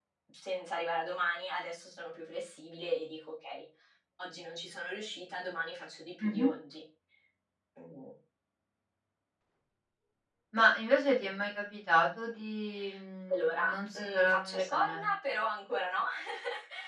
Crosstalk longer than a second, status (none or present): present